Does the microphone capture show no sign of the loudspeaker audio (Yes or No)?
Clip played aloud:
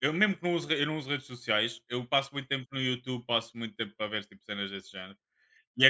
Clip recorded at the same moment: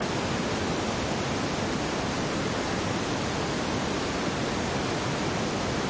Yes